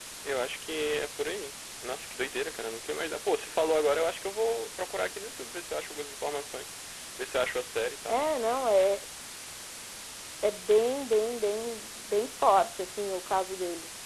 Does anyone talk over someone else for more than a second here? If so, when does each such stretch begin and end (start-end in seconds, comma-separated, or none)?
none